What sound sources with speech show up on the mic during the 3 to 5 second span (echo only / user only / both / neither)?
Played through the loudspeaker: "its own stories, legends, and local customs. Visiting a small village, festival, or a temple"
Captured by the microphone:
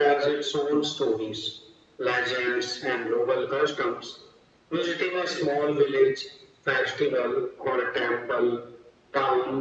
echo only